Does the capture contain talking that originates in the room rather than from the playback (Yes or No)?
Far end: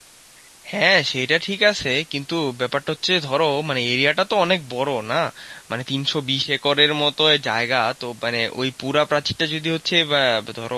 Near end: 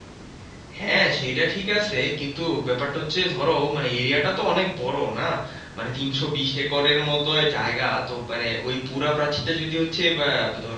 No